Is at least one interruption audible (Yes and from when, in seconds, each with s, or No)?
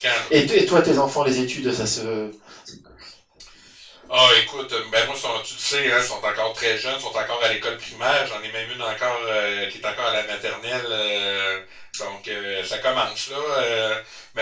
No